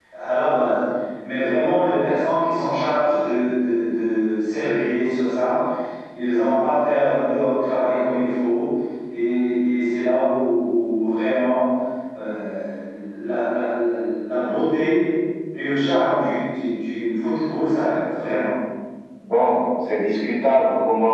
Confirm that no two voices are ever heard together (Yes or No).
Yes